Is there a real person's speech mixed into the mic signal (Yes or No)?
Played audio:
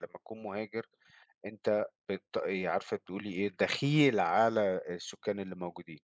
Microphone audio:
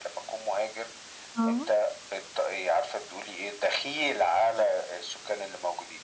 Yes